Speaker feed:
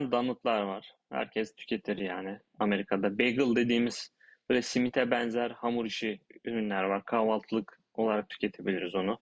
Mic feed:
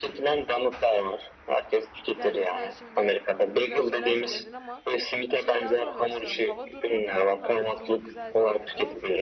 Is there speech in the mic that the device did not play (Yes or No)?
Yes